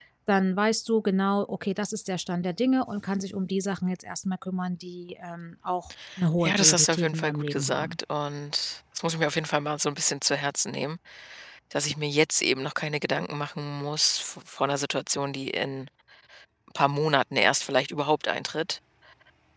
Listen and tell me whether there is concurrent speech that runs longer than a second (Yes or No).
Yes